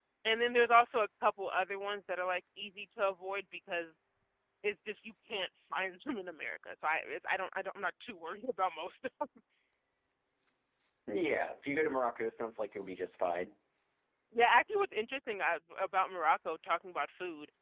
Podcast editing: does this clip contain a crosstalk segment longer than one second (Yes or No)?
No